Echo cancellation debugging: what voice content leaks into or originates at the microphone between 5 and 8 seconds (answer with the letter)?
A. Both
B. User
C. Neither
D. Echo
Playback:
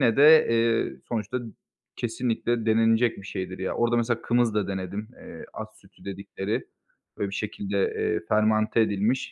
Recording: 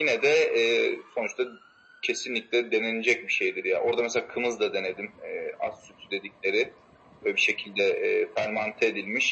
D